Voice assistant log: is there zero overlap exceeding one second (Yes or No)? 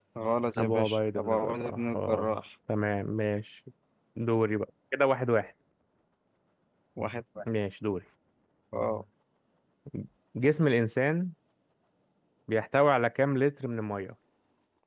No